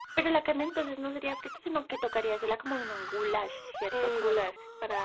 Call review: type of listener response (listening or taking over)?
taking over